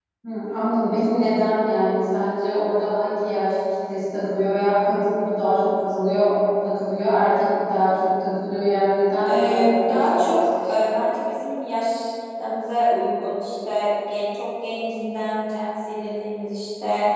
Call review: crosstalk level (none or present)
present